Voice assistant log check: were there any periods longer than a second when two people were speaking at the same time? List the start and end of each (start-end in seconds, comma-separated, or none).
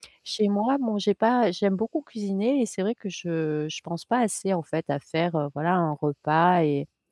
none